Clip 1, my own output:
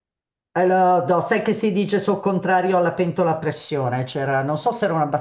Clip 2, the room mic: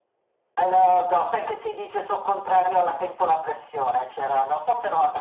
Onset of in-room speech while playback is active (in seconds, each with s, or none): none